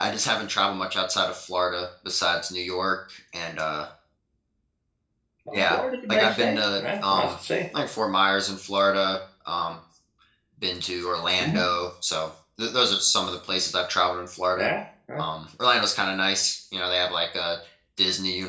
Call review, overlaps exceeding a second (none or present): present